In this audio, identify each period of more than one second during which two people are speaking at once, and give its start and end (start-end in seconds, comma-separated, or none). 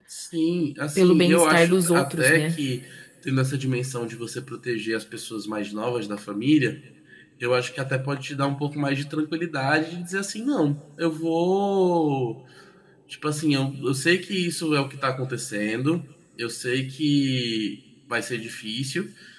0.9-2.6